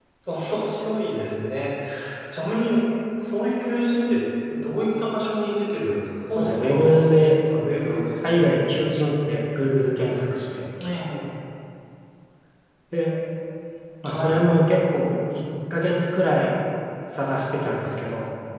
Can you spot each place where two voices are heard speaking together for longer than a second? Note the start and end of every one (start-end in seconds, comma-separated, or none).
6.4-8.1